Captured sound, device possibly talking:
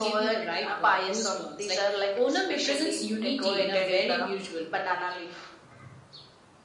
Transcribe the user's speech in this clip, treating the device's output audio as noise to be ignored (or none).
none